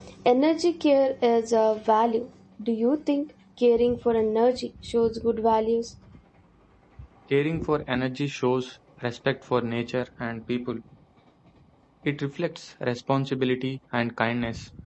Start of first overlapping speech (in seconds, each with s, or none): none